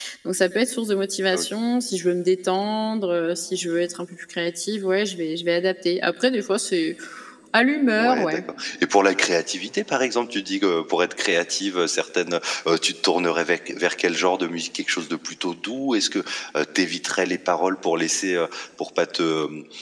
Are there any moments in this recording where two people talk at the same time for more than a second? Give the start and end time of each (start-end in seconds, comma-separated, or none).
none